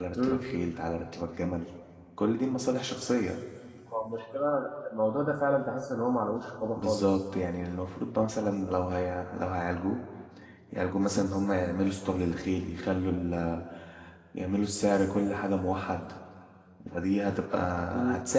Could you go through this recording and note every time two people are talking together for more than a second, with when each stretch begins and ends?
none

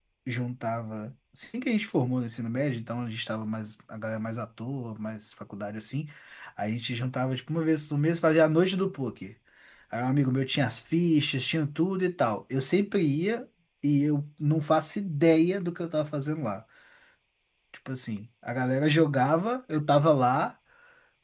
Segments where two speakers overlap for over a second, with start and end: none

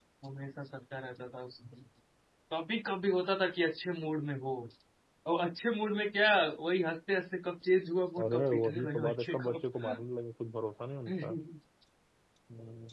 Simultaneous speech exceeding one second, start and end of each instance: 8.2-9.5

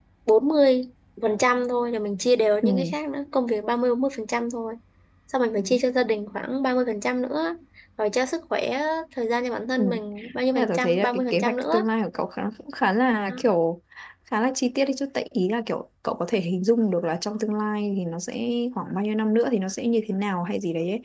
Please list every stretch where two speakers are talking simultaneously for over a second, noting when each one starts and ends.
10.6-11.9

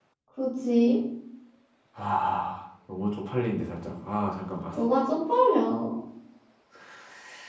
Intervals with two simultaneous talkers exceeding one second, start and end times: none

